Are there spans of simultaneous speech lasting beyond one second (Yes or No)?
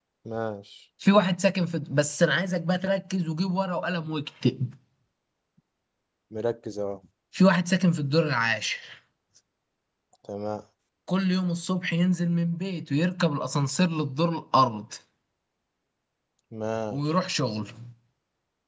No